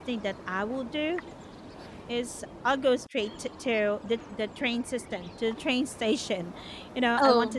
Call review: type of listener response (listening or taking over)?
listening